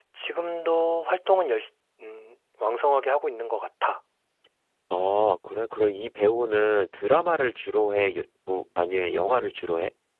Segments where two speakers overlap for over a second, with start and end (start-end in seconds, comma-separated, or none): none